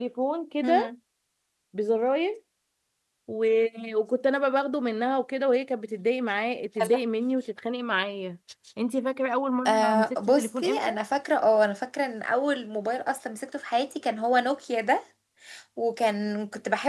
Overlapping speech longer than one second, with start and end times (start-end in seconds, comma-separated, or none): 9.7-10.9